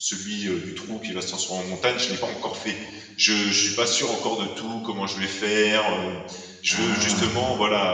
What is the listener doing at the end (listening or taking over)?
listening